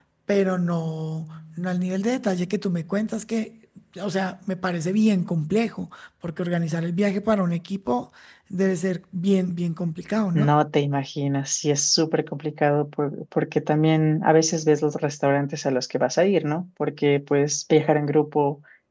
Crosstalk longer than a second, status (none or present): none